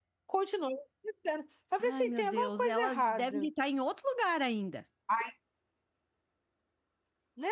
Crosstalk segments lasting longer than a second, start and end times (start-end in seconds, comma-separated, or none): 1.9-3.5